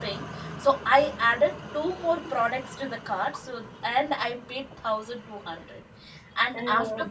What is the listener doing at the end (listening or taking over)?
listening